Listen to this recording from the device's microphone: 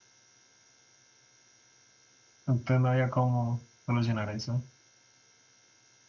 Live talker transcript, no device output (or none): entonces no había cómo solucionar eso.